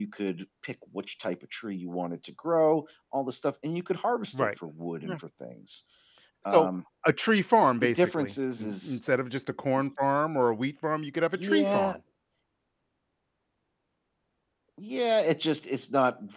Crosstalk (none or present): present